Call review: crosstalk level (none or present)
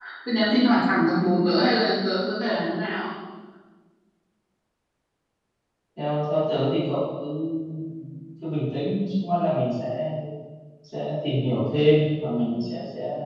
none